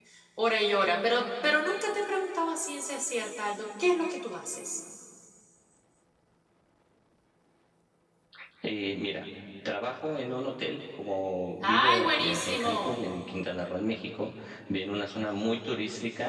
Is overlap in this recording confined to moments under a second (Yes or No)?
No